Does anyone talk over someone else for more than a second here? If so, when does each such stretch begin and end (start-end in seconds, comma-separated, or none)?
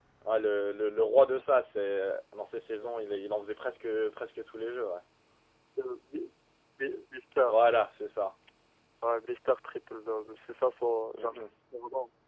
none